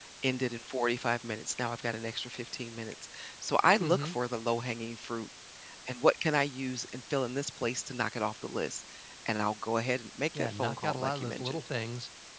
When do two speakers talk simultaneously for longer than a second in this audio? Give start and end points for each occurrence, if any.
10.3-11.6

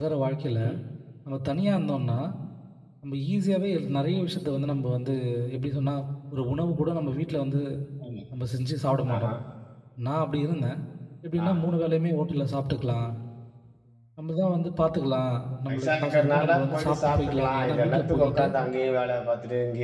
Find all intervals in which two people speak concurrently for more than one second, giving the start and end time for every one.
15.7-18.4

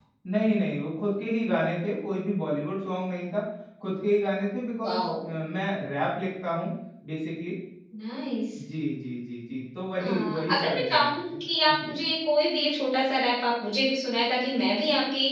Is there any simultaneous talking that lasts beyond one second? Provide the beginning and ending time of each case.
10.0-11.4

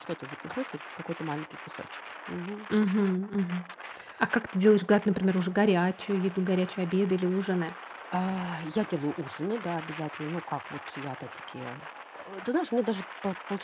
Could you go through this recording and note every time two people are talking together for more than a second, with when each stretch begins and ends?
none

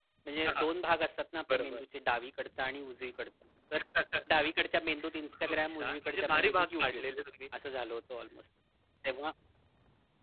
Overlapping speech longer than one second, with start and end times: 5.5-7.1

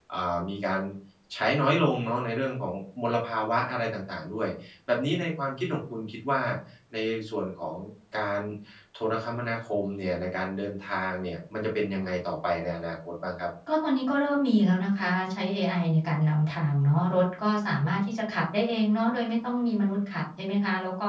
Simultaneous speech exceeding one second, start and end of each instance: none

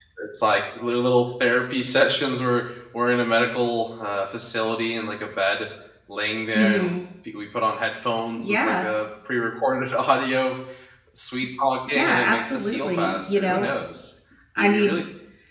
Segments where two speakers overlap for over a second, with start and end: 11.9-13.7

